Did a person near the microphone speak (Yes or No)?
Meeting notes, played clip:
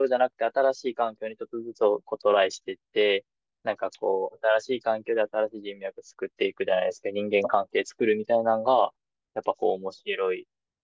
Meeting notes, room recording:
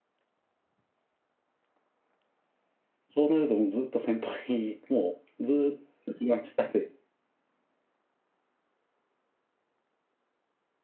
Yes